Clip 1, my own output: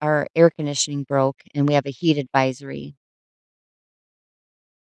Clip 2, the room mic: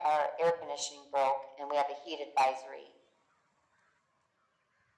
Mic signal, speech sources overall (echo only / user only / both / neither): echo only